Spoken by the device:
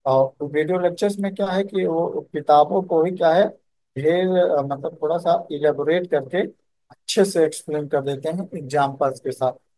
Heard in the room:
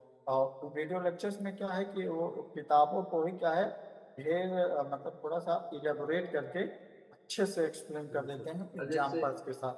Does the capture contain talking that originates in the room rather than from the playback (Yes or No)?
Yes